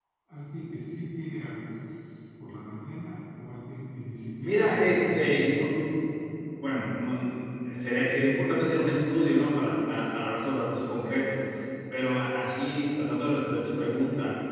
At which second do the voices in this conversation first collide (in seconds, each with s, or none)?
4.4 s